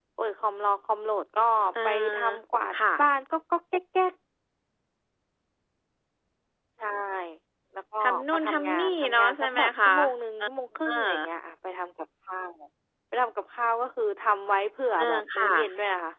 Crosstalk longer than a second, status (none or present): present